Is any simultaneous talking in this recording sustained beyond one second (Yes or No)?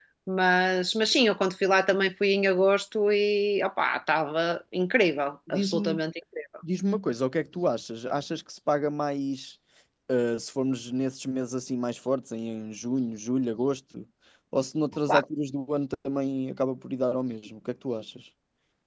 No